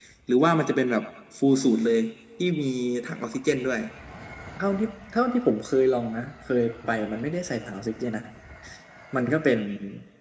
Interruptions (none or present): none